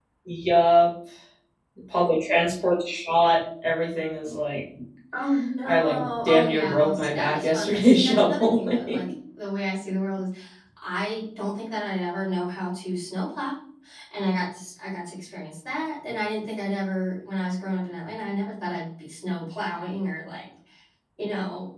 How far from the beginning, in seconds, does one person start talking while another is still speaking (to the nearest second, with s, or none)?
6 s